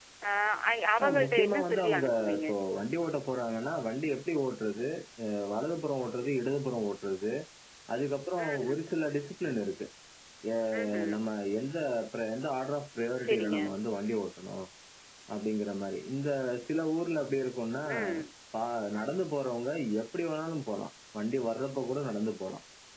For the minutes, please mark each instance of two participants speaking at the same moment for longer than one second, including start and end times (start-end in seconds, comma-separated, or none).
1.0-2.5